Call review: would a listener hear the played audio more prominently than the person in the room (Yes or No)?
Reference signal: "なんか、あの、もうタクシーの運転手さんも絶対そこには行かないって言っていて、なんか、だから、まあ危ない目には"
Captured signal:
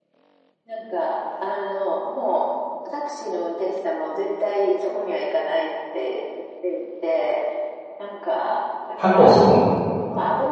No